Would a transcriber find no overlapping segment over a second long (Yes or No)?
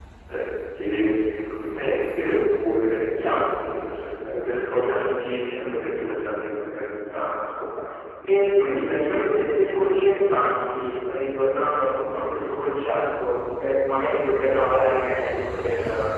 Yes